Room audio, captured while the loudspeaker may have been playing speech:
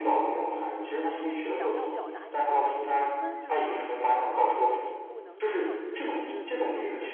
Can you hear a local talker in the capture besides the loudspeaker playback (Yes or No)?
Yes